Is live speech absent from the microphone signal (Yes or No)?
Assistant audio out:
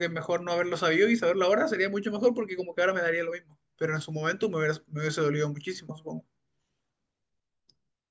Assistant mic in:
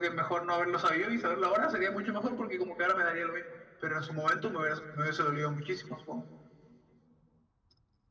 Yes